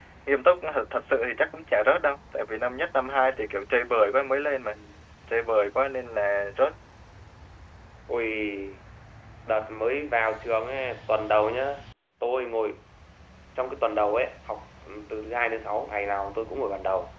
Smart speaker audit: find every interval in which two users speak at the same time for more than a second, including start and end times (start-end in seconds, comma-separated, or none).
none